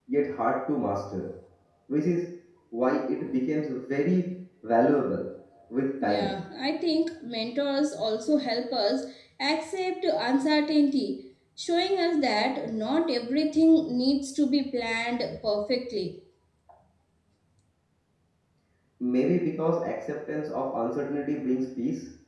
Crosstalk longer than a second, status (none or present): none